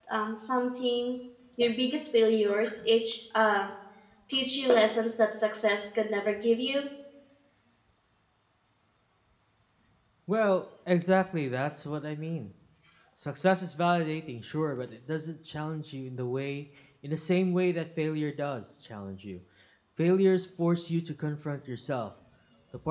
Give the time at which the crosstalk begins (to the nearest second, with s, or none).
none